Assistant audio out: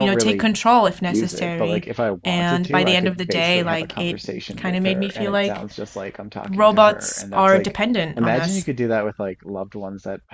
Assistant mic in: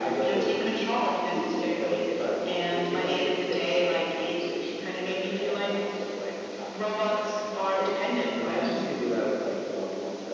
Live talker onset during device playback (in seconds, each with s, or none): none